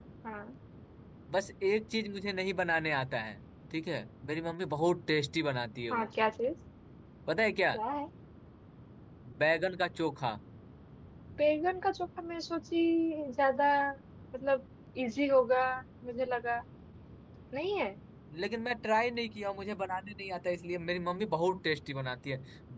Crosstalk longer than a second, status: none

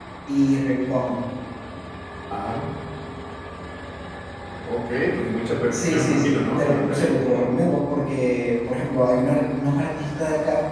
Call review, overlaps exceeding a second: present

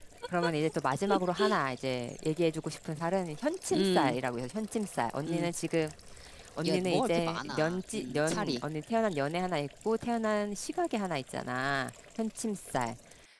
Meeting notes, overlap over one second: present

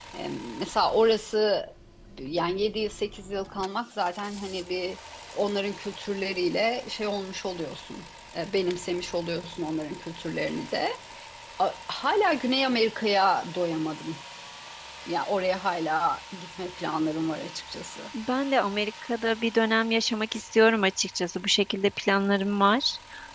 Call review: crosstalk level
none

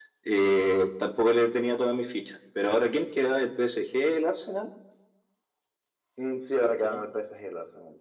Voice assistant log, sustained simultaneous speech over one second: none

